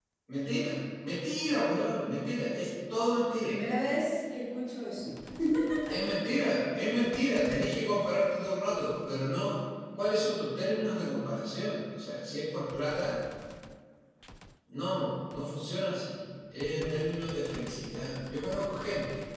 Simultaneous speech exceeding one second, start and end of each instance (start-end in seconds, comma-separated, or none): none